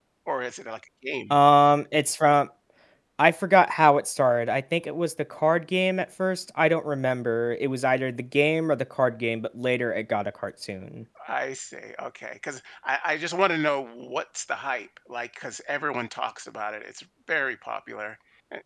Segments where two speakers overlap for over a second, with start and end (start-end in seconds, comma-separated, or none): none